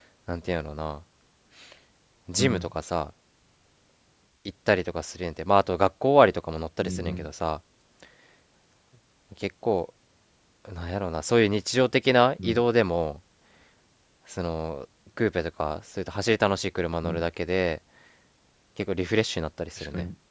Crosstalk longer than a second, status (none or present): none